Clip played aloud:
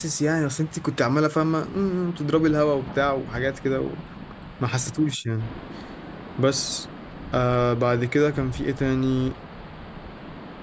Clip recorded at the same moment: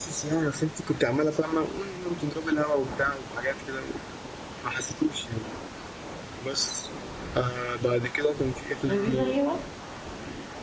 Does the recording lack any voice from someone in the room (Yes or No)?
No